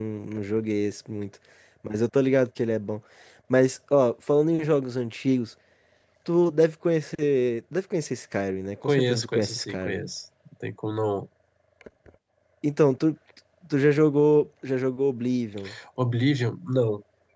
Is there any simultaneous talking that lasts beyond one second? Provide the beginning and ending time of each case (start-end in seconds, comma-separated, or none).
8.8-10.1